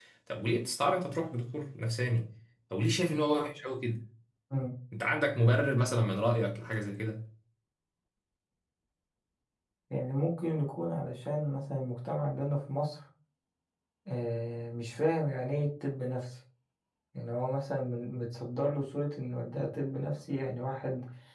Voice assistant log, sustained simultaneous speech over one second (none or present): none